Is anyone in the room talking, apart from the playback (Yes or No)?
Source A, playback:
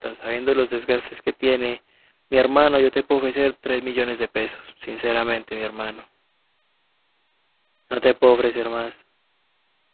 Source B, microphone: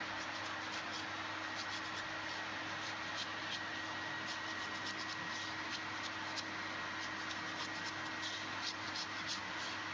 No